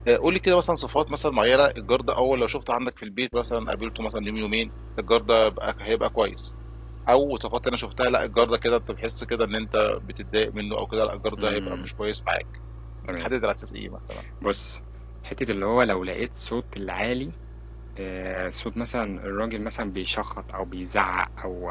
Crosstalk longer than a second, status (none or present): none